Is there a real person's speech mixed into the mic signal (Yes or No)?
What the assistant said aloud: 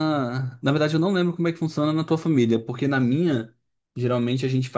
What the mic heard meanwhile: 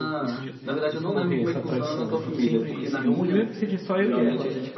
Yes